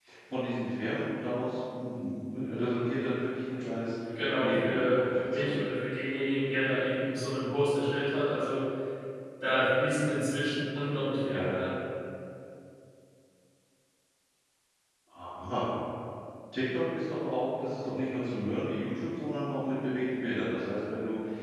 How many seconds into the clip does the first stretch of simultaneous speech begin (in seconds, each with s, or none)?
4.4 s